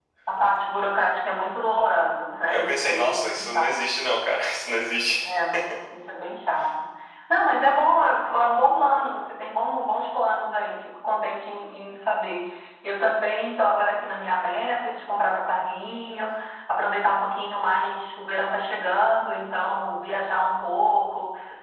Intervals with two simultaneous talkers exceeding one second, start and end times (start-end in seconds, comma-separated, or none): 2.5-3.8